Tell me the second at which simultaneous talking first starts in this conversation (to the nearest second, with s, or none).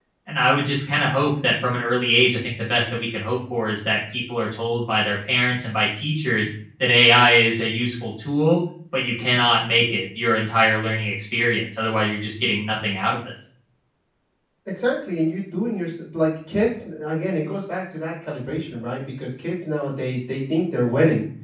none